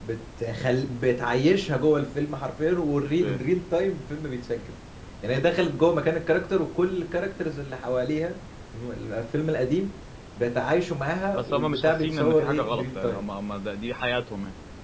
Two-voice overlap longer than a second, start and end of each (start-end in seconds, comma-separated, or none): 11.3-13.2